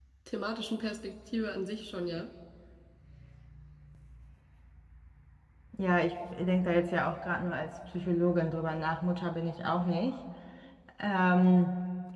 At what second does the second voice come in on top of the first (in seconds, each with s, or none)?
none